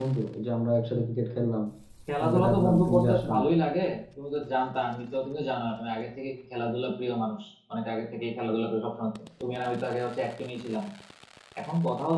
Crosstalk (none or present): present